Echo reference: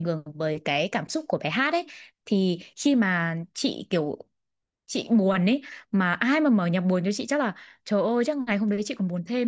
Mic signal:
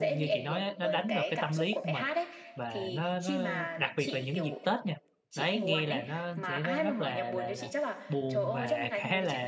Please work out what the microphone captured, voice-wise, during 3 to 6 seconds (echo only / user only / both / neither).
both